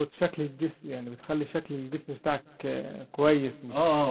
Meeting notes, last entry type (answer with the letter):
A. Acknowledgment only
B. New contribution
A